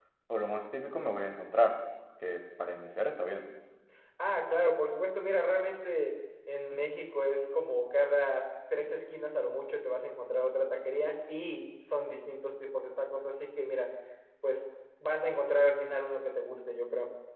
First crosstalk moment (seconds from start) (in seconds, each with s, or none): none